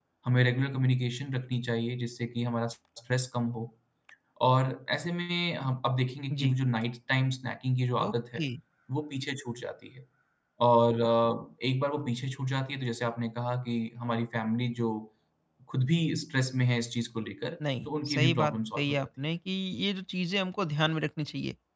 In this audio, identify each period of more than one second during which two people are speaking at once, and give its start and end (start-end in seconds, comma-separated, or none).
17.9-19.1